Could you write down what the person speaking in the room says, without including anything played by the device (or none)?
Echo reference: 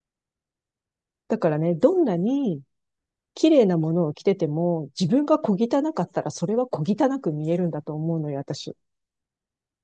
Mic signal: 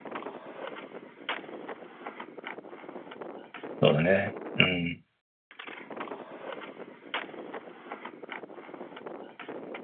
そうだね。うん。